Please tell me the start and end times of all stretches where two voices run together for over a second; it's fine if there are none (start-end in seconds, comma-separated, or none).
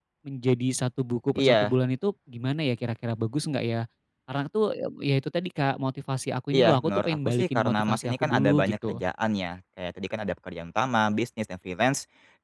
6.5-9.0